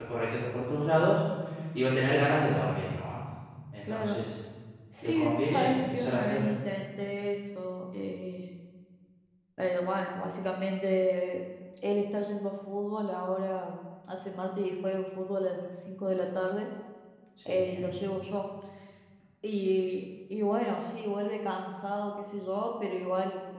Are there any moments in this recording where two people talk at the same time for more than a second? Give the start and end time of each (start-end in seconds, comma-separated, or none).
5.0-6.5